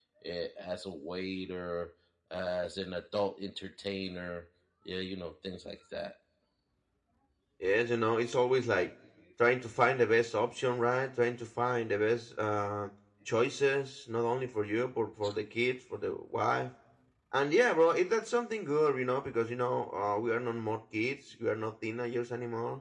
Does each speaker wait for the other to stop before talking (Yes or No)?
Yes